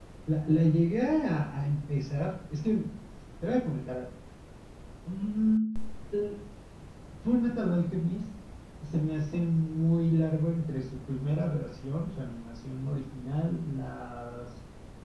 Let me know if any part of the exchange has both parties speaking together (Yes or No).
No